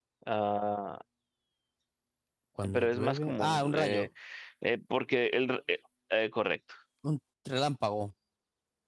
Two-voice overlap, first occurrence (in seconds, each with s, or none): 2.7 s